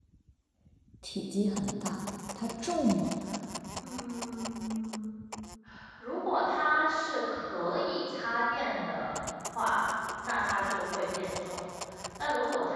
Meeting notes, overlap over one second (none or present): none